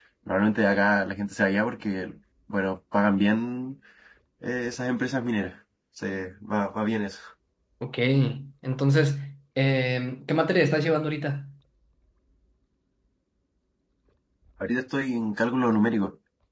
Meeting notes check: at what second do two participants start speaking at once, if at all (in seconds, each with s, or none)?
none